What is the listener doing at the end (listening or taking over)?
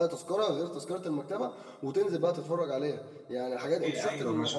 taking over